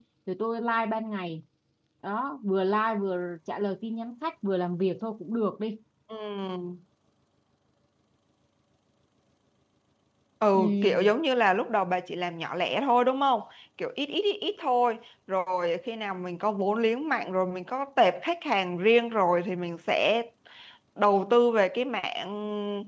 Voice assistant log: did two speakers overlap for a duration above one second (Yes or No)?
No